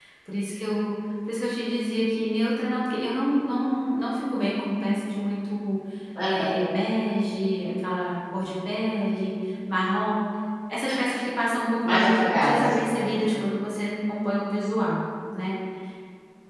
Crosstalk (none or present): present